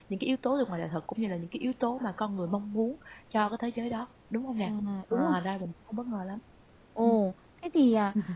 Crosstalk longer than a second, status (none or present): none